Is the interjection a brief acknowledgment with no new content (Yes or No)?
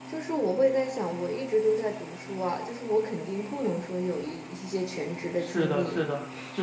No